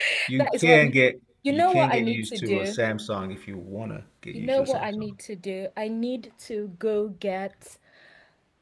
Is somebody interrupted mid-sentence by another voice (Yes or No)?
Yes